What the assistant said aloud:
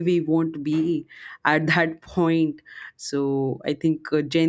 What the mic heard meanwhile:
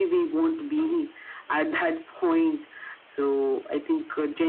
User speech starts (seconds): none

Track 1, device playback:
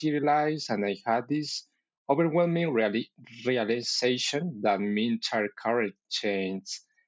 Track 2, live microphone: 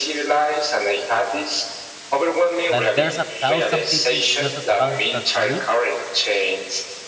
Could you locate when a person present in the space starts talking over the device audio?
2.7 s

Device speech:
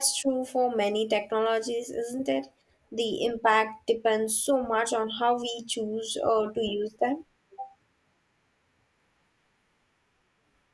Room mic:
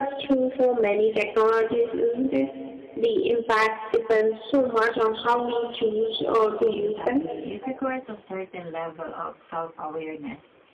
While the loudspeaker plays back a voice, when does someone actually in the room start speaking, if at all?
6.7 s

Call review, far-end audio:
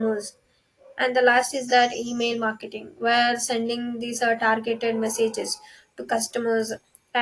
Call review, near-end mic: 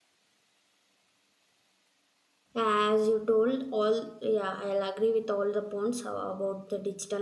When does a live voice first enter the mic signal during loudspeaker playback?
2.6 s

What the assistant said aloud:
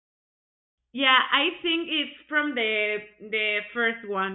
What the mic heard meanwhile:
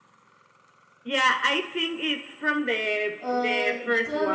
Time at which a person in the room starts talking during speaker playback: 3.2 s

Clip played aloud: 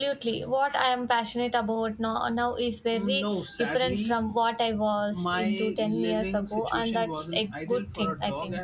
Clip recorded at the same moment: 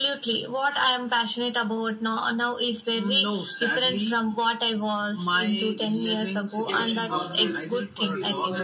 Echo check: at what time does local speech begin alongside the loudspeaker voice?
6.6 s

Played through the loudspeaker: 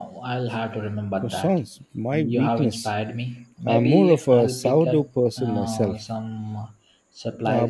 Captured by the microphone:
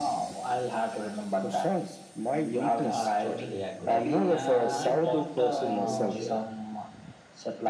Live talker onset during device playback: 2.8 s

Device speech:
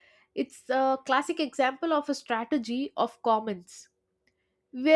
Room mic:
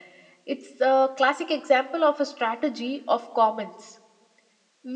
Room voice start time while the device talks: none

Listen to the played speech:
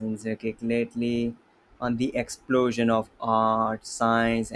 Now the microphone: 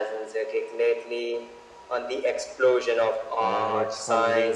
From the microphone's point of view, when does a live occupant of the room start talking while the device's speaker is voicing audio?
3.4 s

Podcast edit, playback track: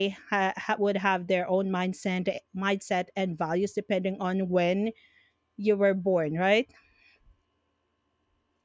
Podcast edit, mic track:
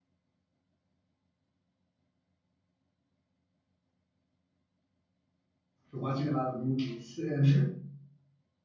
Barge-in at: 5.9 s

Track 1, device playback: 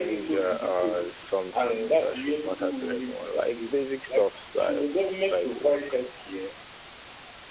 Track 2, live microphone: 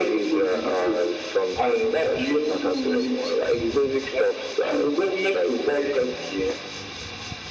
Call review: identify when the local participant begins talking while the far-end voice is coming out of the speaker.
none

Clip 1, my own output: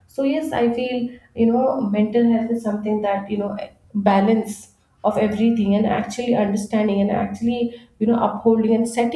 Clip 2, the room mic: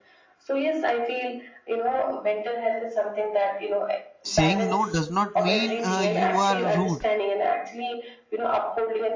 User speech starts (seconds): 4.2 s

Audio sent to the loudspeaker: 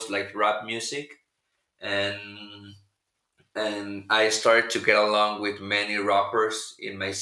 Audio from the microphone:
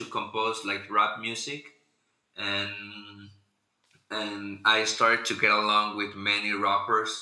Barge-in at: none

